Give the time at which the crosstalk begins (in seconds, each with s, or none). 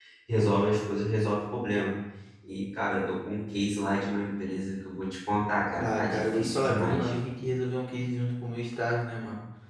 5.8 s